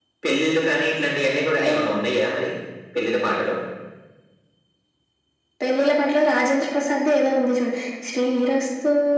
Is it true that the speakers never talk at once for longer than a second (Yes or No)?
Yes